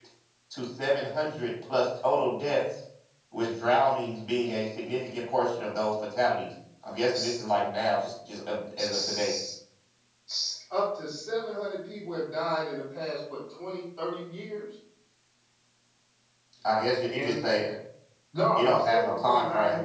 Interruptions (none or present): present